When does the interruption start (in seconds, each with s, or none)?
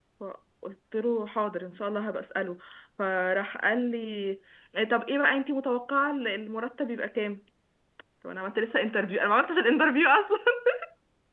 none